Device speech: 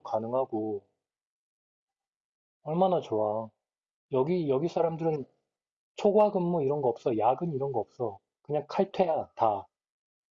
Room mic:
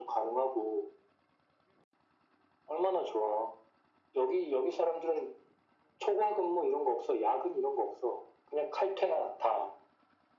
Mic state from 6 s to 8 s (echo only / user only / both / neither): echo only